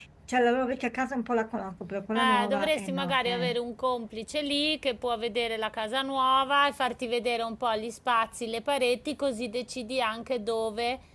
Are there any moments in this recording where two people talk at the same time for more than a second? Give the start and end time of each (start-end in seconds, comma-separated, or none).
2.2-3.6